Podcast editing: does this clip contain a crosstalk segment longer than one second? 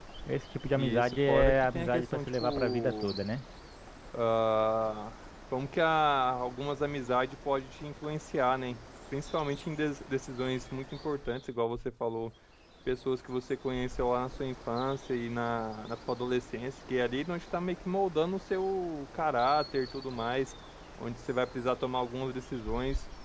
Yes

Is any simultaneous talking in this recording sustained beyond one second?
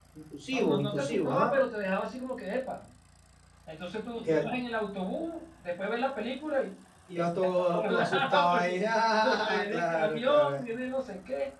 Yes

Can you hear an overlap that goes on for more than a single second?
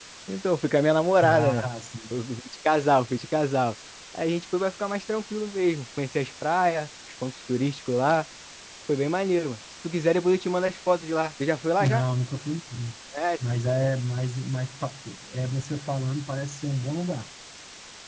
No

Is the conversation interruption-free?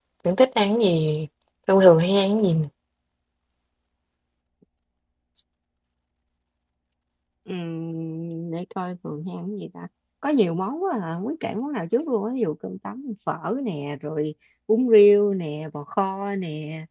Yes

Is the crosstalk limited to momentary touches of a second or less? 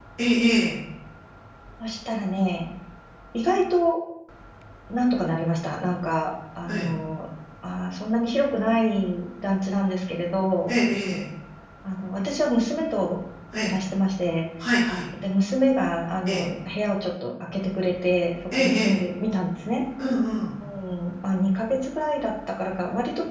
Yes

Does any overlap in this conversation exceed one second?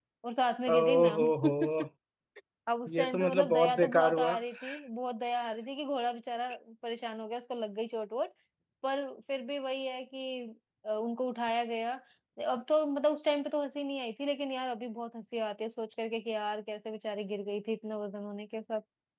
Yes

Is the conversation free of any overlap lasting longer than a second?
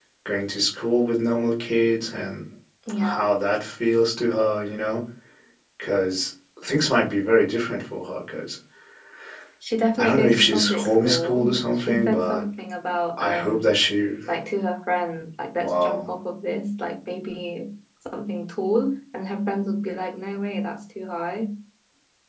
No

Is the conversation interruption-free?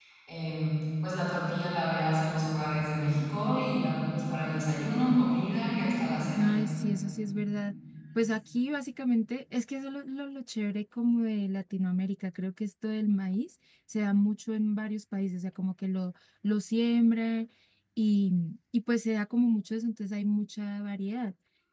Yes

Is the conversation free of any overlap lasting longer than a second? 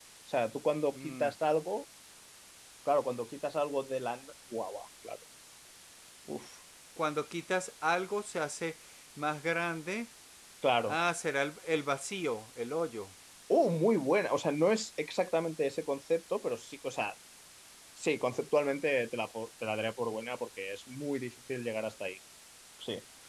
Yes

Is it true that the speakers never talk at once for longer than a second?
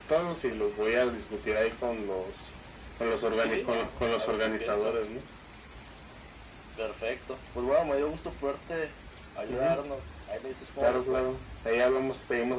No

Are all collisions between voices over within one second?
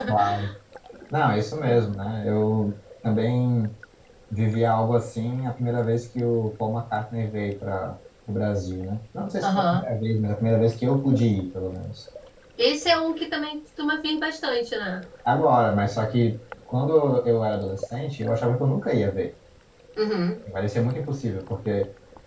Yes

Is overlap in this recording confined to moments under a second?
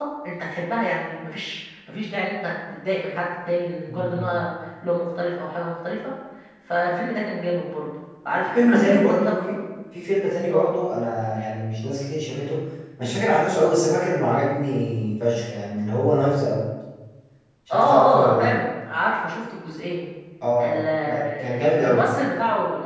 No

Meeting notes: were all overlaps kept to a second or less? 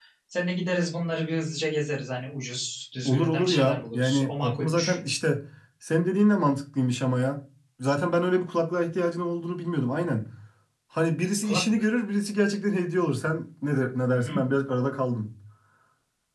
No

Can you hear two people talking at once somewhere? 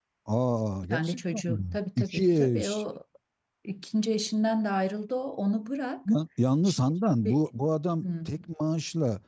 Yes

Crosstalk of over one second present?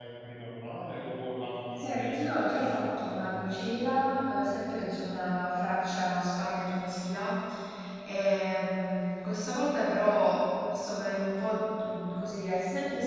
Yes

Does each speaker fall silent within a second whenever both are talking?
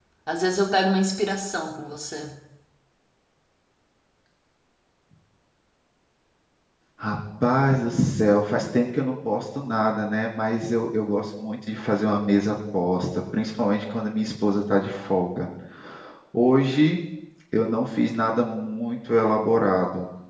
Yes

